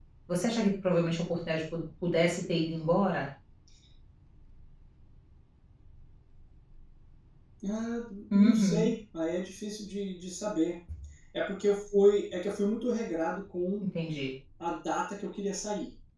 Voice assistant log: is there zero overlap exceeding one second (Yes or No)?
Yes